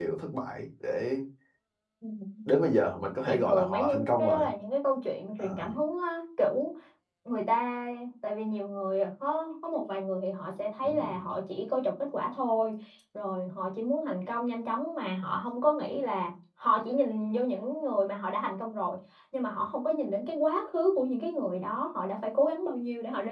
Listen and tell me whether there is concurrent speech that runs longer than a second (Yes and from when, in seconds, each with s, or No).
Yes, from 3.2 s